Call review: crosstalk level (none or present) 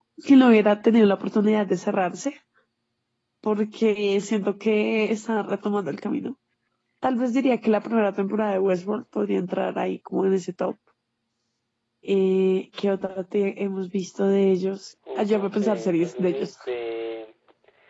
present